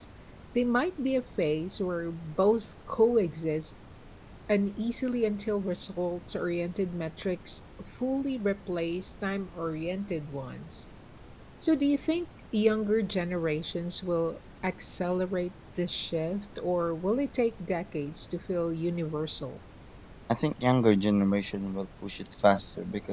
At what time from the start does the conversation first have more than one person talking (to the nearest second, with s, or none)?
none